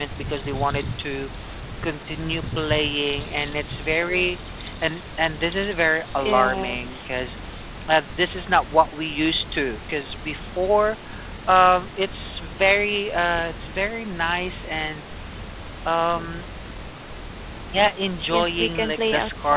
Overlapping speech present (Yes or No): Yes